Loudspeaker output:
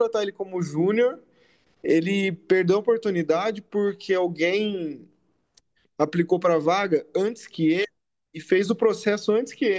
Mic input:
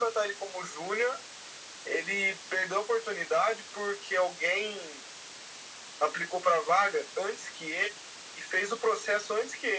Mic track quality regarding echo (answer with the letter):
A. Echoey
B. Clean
A